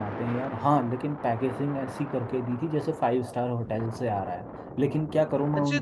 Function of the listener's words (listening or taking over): taking over